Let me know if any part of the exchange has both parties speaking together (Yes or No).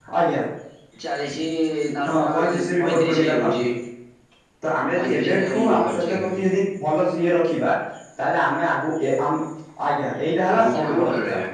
Yes